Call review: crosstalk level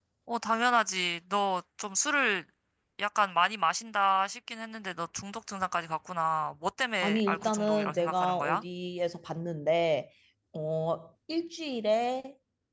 present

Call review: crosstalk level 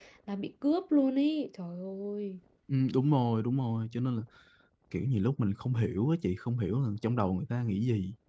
none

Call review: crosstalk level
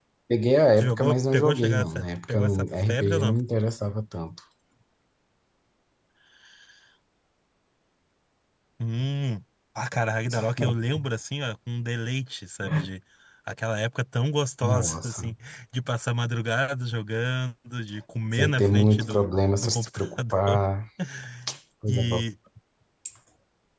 present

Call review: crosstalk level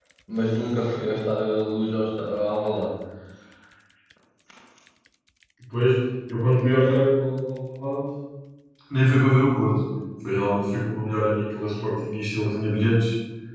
none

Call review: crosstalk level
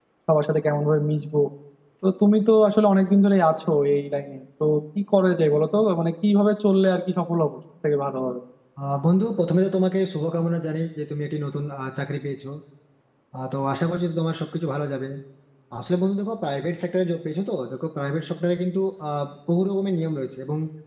none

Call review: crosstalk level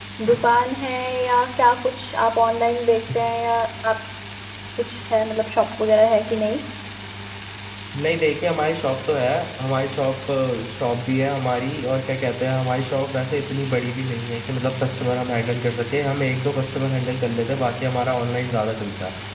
none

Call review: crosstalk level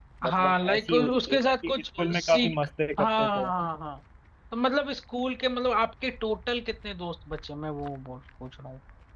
present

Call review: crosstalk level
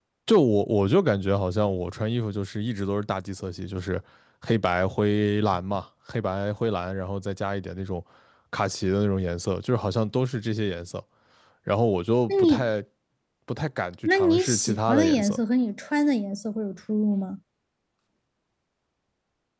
present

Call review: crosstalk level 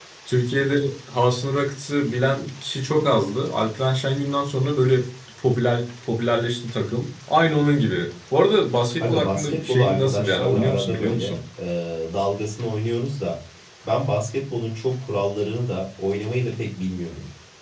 present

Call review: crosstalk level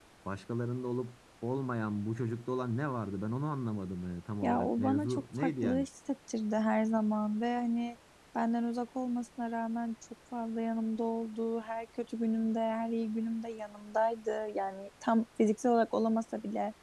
present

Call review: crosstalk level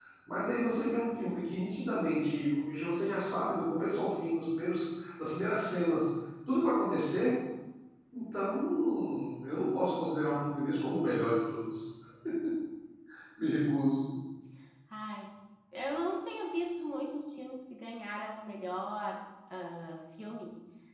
none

